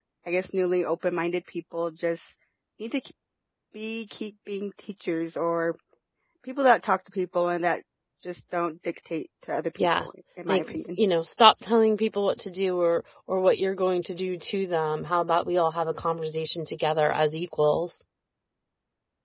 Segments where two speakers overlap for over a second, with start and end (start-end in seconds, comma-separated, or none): none